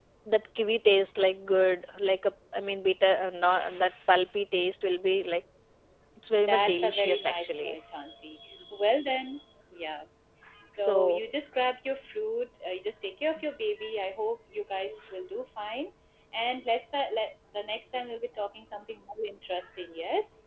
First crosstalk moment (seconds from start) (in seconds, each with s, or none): 6.4 s